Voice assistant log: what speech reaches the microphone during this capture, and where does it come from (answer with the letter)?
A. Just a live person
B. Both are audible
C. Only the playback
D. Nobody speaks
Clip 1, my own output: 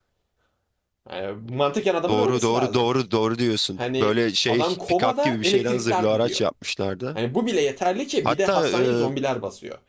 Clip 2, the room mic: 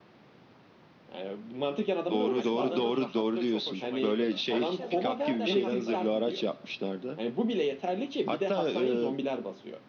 B